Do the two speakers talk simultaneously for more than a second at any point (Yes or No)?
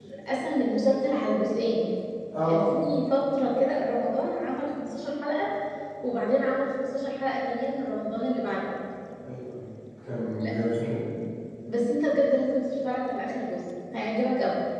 No